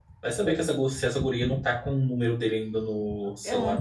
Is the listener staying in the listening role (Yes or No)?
No